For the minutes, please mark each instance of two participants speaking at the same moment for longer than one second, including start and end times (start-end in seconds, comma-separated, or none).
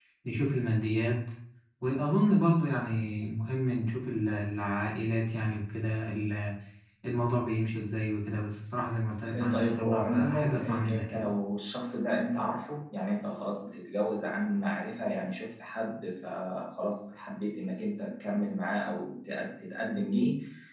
9.4-11.3